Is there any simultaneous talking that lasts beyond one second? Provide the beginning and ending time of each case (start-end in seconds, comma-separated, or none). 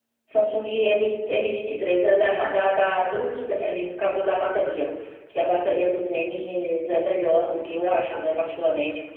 none